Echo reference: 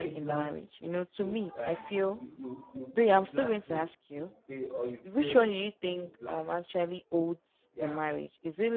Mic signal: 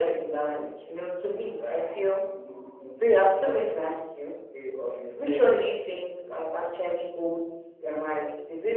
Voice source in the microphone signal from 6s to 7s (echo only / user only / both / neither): echo only